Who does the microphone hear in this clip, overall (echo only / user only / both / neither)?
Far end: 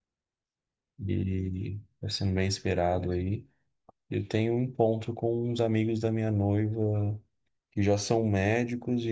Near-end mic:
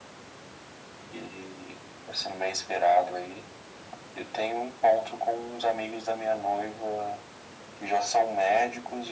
echo only